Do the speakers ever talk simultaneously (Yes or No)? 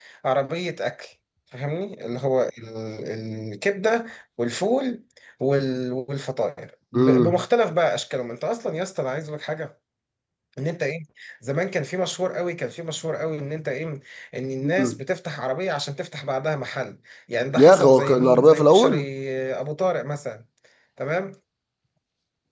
Yes